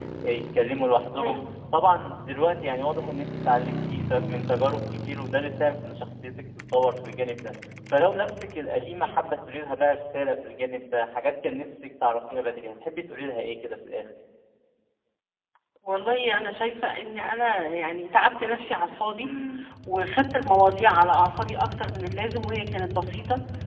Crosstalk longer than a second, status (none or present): none